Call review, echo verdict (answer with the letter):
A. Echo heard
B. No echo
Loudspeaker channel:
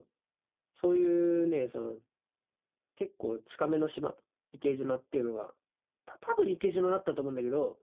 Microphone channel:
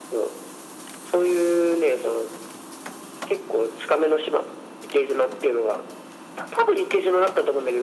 A